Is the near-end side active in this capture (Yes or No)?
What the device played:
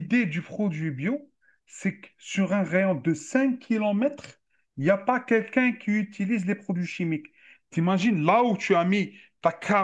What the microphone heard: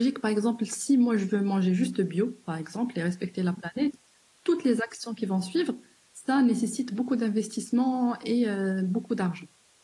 Yes